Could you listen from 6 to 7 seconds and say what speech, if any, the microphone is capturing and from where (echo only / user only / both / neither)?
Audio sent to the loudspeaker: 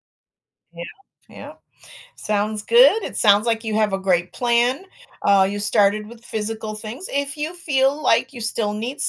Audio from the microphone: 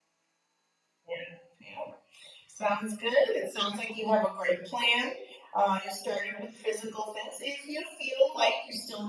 echo only